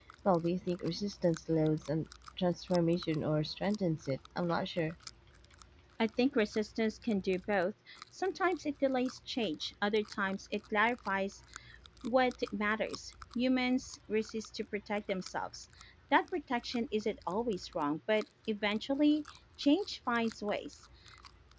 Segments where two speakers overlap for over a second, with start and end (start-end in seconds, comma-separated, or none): none